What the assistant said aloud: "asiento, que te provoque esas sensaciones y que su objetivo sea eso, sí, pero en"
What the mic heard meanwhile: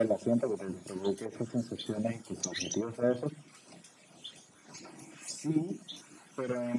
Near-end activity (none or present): none